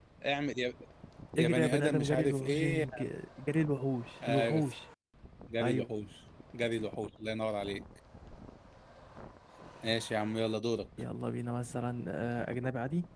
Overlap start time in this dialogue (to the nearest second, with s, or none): 1 s